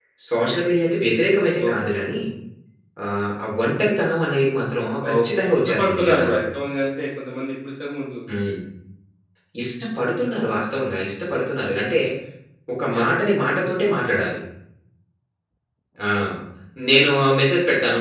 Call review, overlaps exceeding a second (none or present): present